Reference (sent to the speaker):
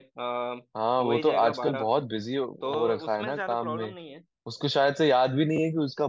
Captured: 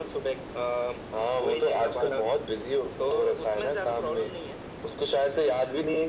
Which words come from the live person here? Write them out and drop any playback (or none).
none